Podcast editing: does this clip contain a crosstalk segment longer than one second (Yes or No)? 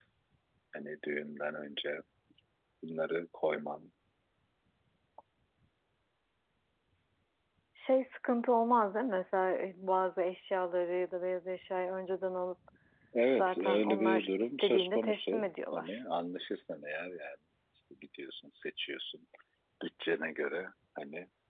Yes